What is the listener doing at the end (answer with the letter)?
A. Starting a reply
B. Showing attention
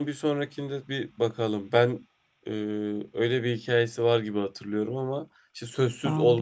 B